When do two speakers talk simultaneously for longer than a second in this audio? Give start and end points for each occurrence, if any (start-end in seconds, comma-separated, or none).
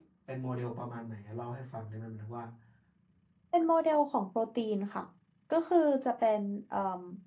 none